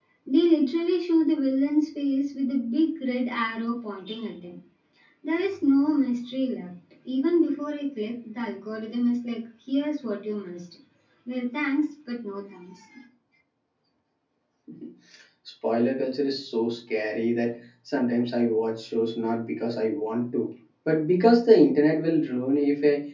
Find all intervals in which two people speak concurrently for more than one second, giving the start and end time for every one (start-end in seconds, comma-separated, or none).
none